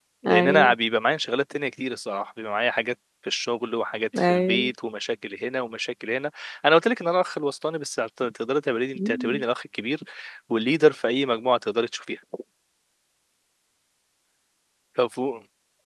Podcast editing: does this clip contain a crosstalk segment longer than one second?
No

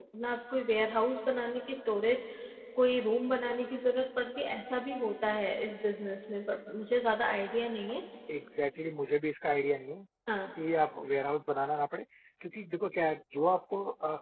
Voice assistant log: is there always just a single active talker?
Yes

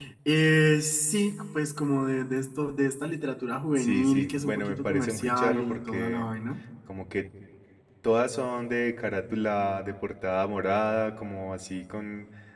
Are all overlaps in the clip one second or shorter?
No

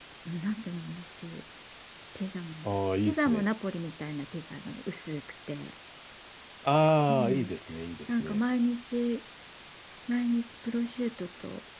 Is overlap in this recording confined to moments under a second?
Yes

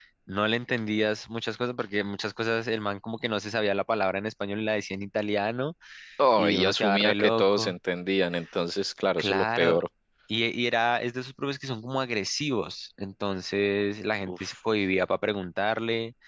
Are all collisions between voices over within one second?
No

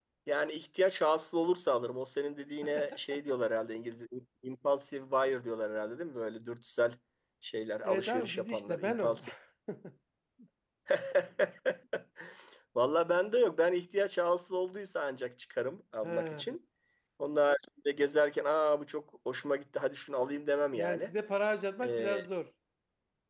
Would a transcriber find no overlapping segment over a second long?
No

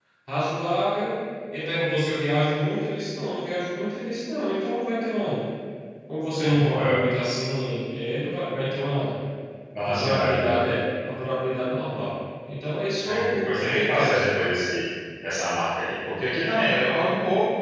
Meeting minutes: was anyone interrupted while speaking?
Yes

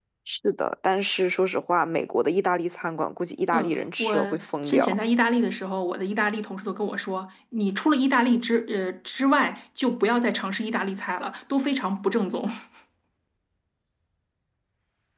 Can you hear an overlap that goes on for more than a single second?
Yes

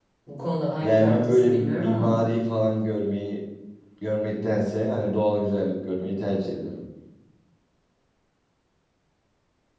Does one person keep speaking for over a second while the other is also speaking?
Yes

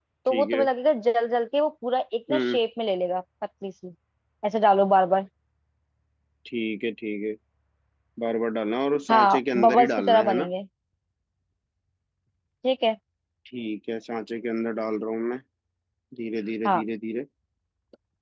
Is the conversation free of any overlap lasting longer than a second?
No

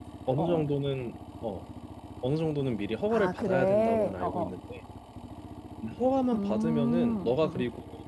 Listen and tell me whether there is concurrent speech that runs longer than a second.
Yes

